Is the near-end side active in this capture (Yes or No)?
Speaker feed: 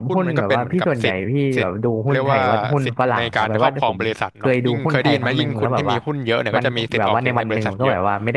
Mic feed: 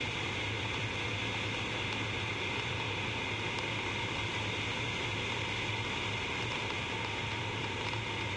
No